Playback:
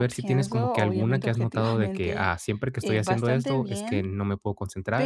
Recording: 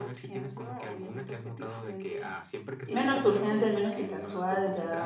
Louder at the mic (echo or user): user